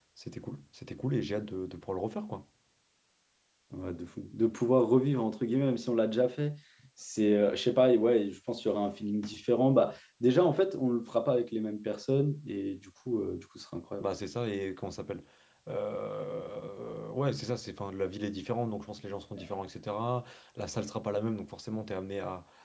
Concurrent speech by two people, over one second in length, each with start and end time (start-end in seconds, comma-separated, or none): none